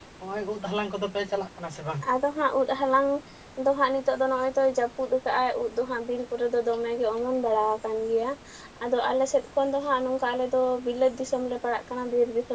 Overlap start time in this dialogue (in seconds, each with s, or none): none